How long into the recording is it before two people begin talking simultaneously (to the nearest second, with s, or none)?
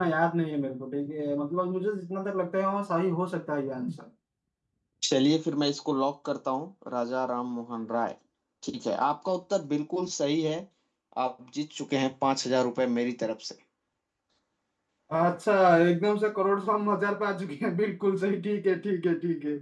none